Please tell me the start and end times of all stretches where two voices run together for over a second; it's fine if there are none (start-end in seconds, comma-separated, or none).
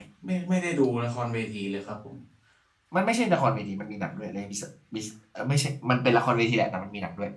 none